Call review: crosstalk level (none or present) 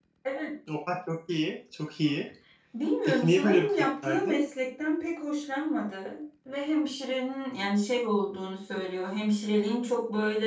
present